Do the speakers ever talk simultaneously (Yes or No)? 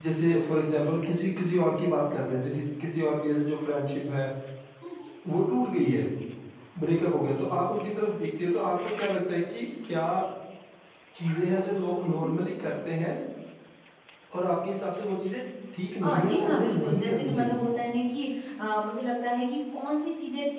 Yes